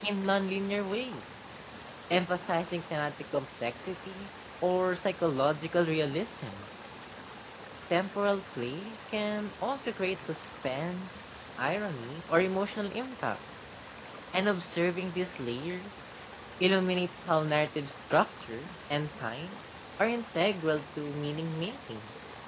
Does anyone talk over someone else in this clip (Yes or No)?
No